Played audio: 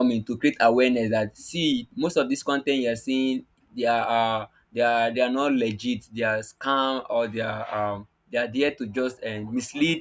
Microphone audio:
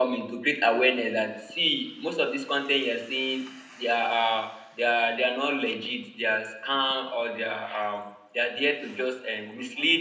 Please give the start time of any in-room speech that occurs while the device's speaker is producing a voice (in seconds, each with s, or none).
none